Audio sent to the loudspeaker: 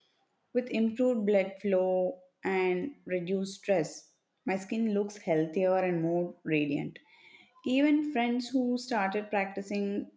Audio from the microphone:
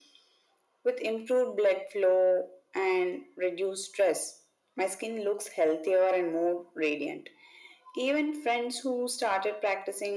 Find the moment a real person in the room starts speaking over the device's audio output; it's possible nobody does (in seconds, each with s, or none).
none